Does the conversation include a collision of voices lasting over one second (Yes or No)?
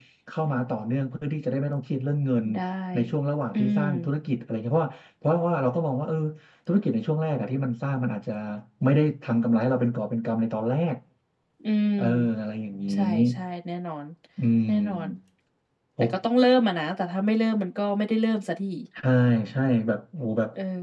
No